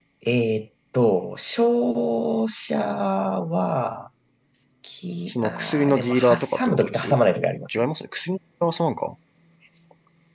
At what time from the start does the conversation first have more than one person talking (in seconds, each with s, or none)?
5.3 s